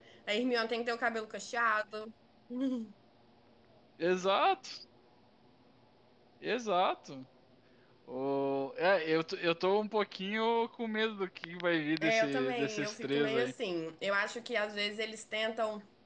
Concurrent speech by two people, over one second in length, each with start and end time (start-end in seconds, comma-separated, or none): 12.0-13.5